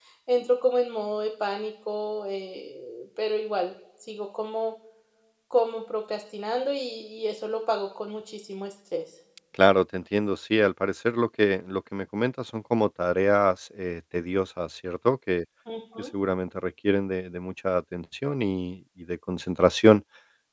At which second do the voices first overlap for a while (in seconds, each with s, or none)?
none